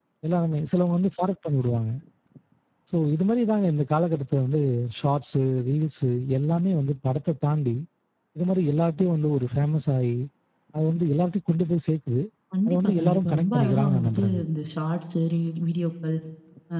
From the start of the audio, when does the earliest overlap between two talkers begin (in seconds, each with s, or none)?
12.7 s